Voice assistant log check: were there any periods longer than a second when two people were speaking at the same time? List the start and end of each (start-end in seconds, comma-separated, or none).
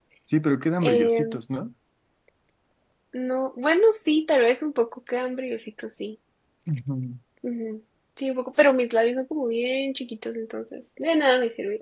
none